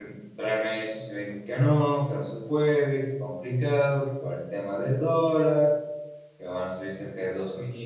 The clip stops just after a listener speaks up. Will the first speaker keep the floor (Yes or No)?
Yes